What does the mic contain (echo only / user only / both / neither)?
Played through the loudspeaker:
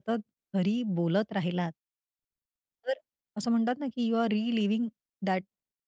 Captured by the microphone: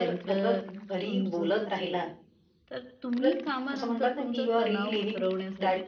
both